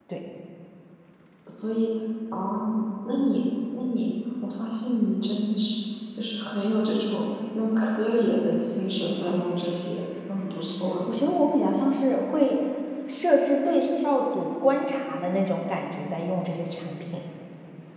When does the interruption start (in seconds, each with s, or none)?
none